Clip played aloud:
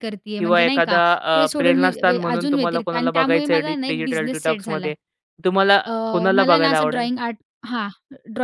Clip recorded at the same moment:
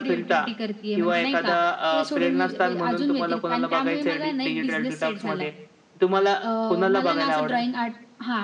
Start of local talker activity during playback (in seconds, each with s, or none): none